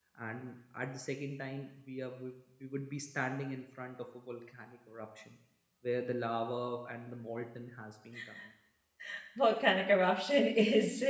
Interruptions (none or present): none